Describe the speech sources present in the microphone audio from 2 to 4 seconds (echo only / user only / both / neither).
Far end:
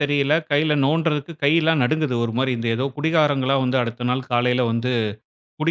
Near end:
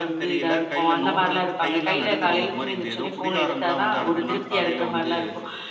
both